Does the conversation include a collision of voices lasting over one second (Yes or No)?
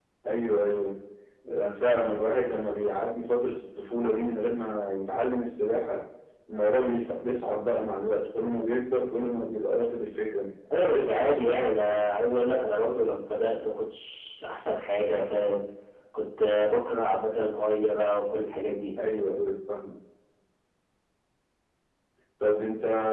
Yes